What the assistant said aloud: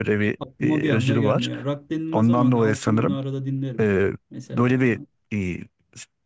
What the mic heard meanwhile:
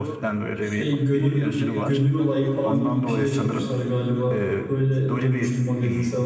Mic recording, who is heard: both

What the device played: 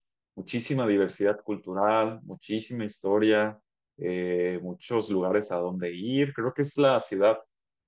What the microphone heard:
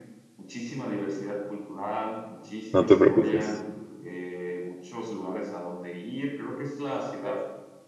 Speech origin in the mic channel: both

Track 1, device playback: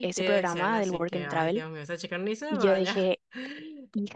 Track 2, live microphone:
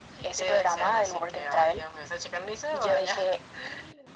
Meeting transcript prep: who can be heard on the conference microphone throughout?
echo only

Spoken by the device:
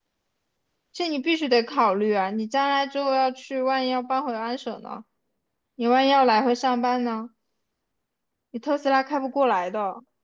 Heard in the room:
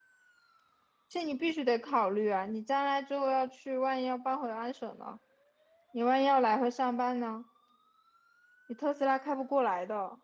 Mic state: echo only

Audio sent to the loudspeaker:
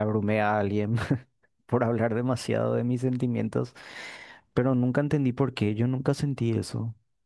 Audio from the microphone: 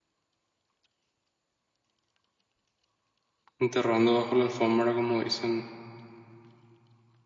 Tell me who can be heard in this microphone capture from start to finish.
user only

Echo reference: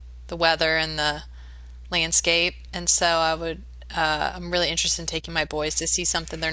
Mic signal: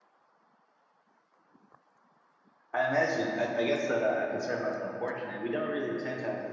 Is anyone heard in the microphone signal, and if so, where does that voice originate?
user only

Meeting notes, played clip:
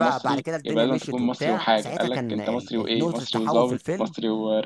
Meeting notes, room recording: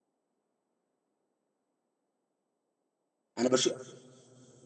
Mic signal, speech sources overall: user only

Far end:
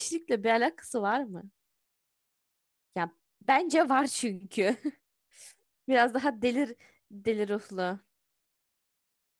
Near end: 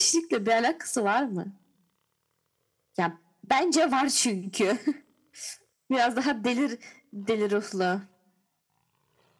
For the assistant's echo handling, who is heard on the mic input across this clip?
echo only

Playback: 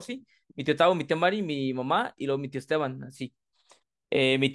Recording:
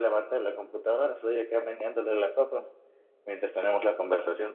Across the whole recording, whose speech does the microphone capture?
user only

